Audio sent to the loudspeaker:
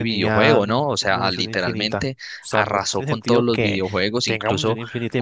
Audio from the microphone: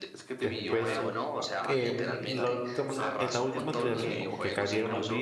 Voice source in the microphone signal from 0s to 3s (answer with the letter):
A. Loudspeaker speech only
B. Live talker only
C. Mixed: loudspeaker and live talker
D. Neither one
C